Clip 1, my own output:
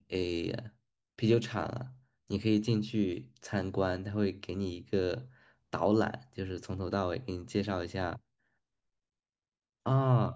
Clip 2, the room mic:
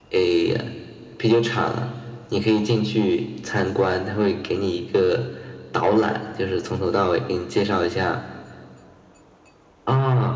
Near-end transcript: none

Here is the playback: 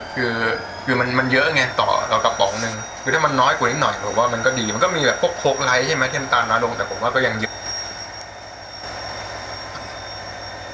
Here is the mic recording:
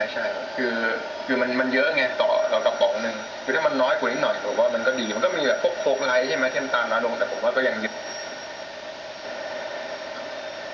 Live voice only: none

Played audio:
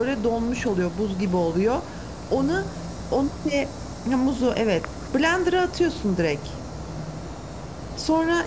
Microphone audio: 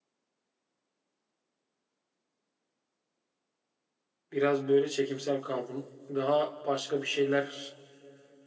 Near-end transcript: Biraz böyle çekimsel kaldım. Daha başka bir şeyler

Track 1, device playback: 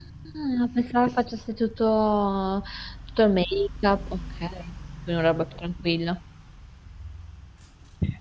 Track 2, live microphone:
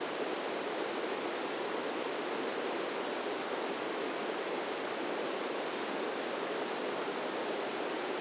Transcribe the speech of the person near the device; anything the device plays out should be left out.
none

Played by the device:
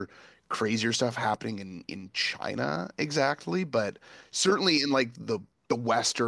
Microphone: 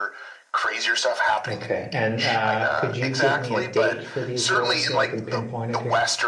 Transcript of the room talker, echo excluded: Okay. And uh, could you give me a date for these wars so I can pinpoint it here?

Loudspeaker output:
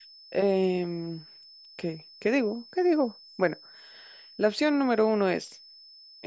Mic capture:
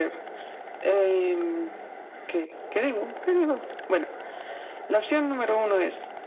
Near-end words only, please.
none

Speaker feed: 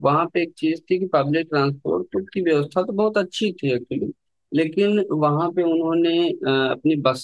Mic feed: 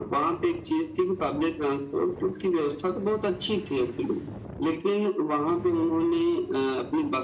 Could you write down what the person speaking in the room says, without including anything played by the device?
none

